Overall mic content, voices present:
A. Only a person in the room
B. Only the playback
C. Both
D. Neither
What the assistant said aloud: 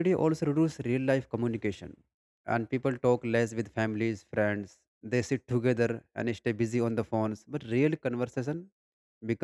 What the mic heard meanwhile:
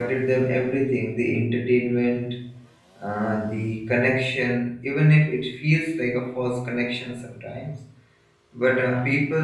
A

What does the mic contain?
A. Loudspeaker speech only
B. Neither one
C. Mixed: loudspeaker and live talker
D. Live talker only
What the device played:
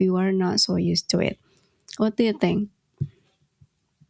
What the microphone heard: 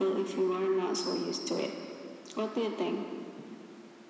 A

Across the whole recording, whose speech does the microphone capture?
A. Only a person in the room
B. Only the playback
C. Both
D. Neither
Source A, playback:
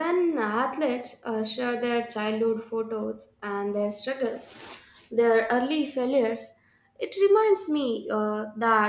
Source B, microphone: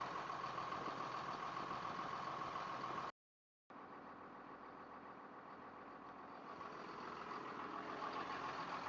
D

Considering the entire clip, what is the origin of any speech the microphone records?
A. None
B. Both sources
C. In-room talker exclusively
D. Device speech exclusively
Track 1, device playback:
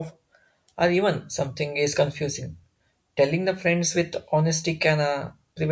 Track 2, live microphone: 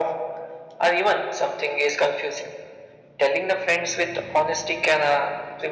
D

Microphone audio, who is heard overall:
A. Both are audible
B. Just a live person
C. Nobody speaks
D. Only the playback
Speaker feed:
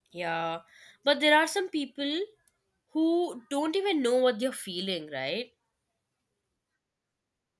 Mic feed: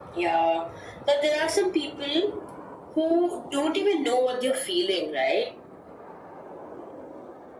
D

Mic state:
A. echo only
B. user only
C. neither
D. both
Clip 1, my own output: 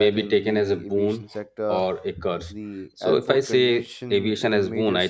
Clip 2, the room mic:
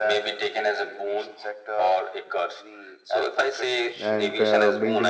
D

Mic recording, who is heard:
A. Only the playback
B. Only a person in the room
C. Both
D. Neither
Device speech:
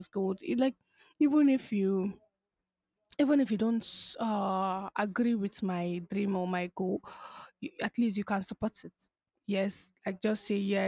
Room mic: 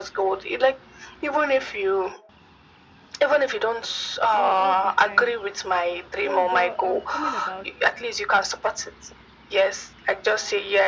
C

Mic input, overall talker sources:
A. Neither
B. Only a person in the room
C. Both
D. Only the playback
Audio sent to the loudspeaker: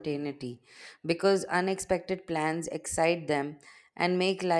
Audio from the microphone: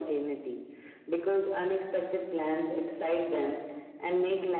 D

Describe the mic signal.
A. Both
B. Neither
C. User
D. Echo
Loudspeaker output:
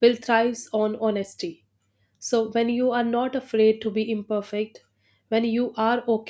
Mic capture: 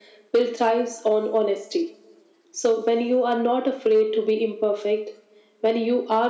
D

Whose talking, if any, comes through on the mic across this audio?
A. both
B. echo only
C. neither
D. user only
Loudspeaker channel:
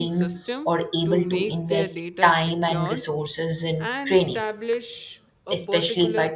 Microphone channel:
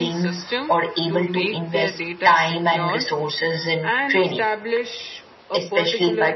B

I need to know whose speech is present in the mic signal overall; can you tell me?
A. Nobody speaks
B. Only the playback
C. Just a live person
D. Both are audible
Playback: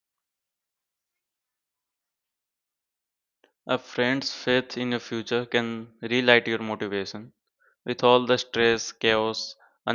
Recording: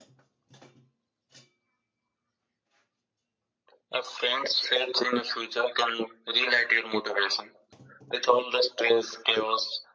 B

